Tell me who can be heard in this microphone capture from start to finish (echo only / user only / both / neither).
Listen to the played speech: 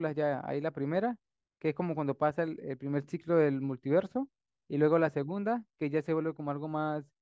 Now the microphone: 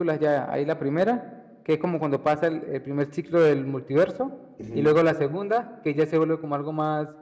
both